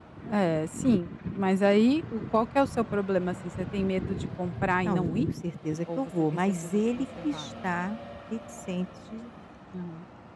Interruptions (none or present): present